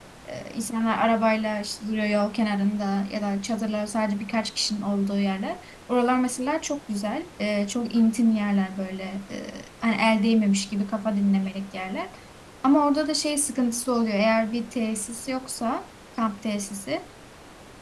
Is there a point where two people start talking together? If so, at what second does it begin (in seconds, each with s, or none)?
none